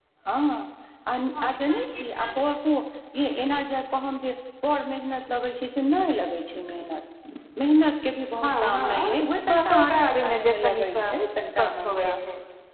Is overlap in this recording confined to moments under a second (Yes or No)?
No